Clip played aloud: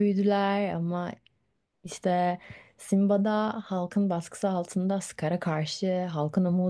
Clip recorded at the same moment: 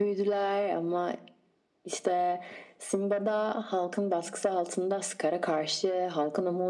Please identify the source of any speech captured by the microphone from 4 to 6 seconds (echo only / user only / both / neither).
echo only